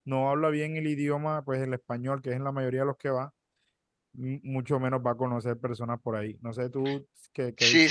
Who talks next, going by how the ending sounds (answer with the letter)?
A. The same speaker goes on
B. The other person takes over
B